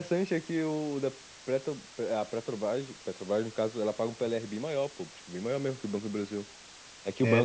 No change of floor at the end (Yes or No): Yes